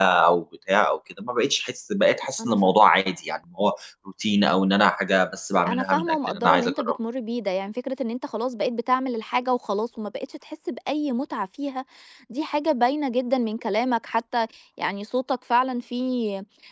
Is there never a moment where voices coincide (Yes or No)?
No